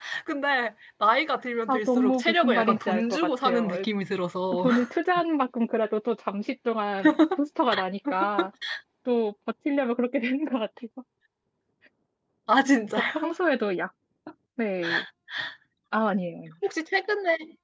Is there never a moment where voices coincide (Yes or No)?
No